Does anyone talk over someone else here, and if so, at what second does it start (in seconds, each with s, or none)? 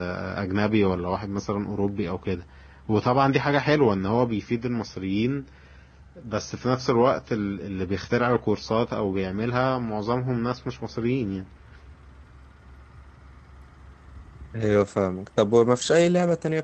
none